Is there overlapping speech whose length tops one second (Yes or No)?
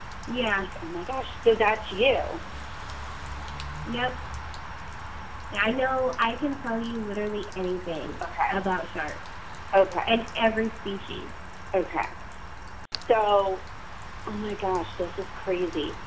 No